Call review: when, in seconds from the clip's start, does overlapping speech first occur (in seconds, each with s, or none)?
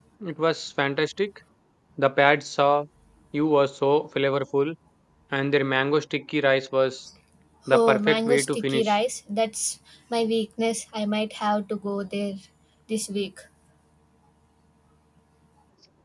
7.7 s